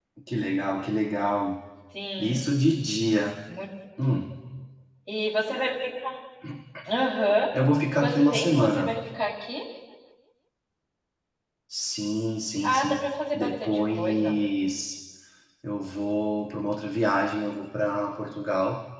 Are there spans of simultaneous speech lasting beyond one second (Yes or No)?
Yes